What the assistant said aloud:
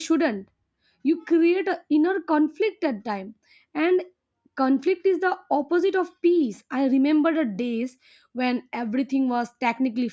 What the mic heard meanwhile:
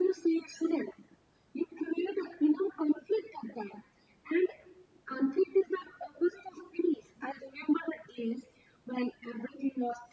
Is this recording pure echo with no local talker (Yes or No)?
Yes